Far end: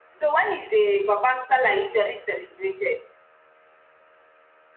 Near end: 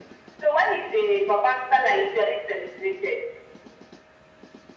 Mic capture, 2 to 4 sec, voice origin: echo only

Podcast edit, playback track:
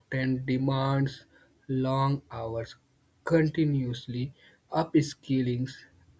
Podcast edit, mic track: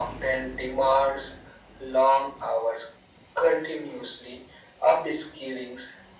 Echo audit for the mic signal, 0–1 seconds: echo only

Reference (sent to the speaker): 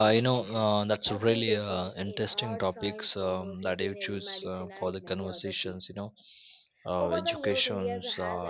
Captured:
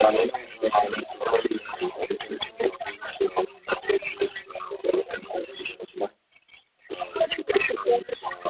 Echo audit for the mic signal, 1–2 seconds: echo only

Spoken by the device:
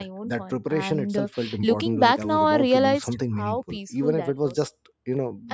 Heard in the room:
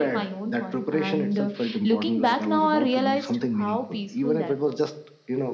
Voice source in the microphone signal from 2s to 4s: echo only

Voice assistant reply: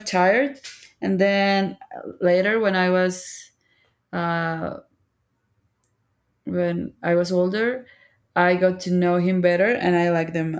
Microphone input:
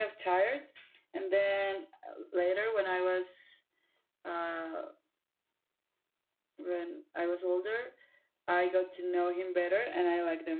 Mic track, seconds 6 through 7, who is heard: echo only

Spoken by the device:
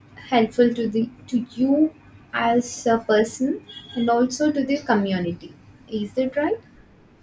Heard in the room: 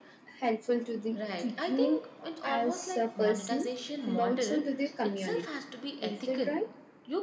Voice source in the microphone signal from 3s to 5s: both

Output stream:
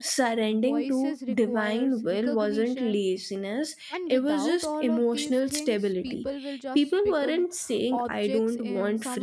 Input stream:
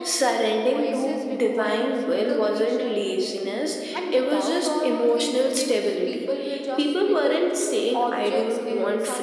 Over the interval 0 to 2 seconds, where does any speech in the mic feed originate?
echo only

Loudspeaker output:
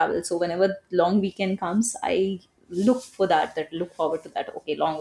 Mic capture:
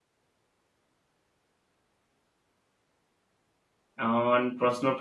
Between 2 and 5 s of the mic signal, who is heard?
user only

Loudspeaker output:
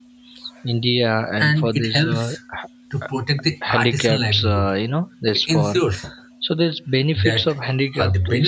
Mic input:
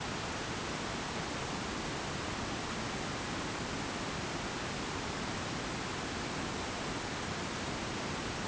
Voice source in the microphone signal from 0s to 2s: neither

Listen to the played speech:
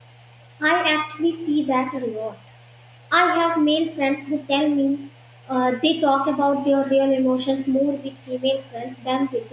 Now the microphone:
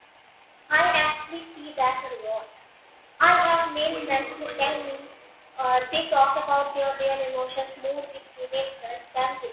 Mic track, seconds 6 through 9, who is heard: echo only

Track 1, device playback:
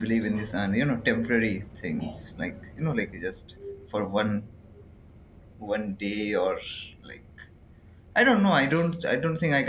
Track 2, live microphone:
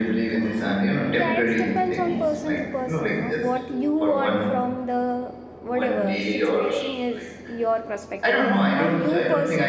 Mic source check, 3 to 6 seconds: both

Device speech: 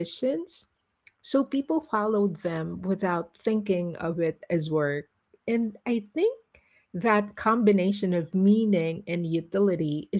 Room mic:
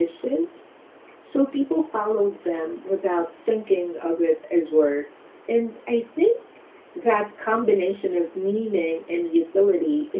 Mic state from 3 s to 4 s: echo only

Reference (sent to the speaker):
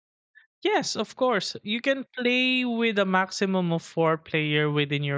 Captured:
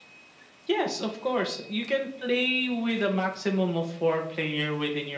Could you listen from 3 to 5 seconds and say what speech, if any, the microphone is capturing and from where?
echo only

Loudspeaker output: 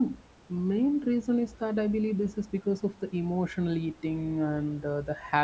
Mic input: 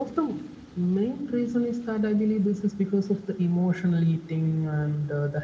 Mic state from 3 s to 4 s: echo only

